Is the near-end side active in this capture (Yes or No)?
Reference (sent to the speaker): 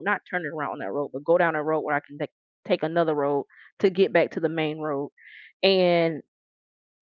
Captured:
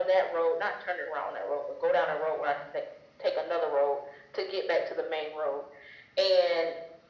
No